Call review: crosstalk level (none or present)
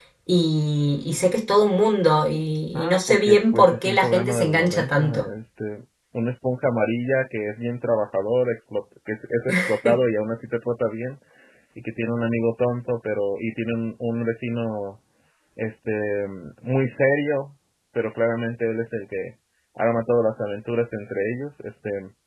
present